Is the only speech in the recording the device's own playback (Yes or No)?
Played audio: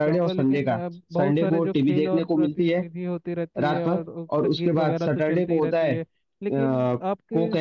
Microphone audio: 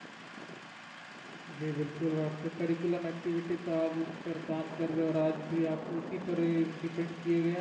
No